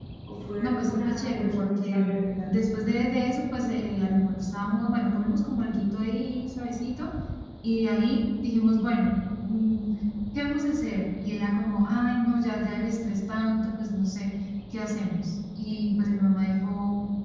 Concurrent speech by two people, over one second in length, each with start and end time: 0.6-2.0

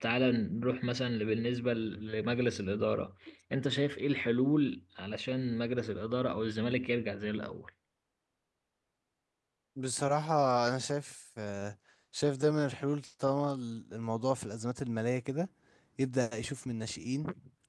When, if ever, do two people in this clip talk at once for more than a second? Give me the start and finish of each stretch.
none

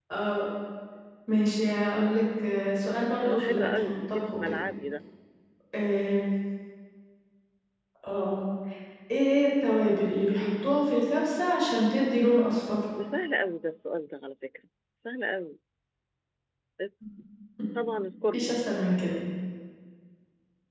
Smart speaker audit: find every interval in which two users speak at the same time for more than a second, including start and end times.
3.2-4.5

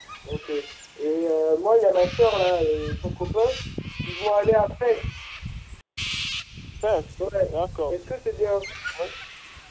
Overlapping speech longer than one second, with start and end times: none

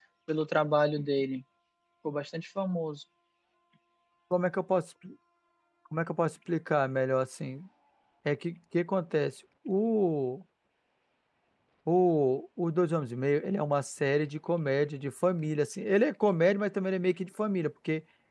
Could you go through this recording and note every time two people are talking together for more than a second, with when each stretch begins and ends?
none

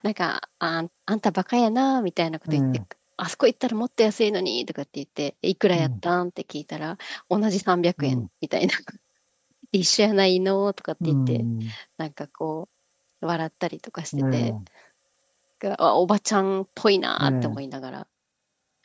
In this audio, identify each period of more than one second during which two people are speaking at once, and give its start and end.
none

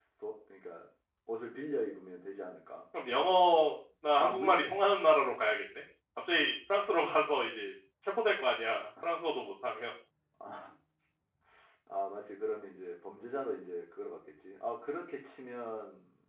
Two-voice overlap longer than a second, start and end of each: none

